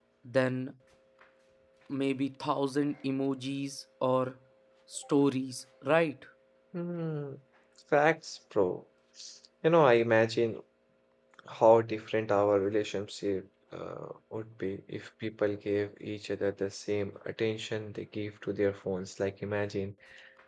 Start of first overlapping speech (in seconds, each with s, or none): none